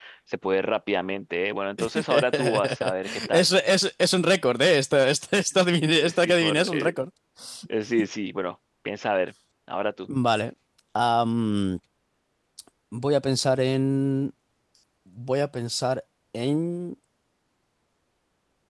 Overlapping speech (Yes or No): Yes